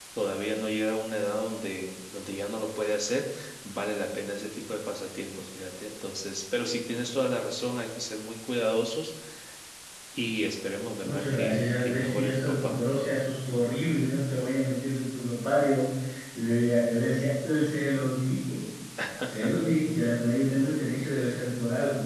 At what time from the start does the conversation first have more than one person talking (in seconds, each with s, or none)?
11.0 s